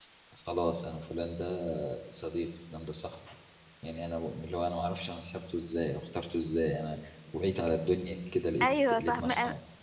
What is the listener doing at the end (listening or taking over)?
taking over